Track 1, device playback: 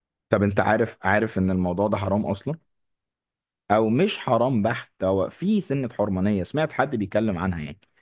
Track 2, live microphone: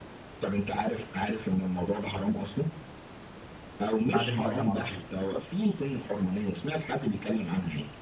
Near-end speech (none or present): present